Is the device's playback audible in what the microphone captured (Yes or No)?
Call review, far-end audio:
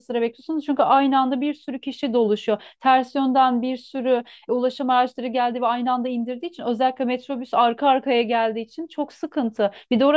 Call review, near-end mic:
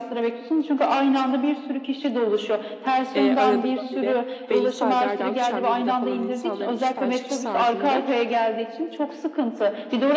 Yes